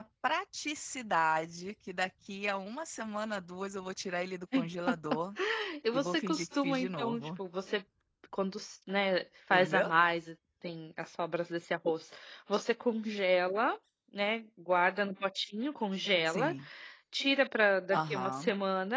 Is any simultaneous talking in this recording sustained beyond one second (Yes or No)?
Yes